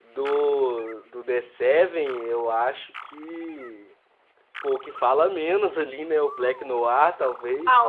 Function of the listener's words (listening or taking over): taking over